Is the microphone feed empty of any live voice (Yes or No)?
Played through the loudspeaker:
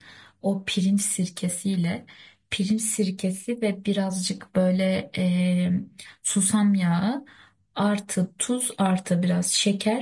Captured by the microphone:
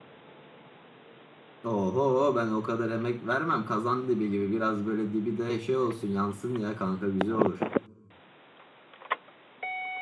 No